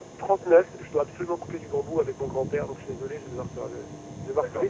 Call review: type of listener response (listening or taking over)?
taking over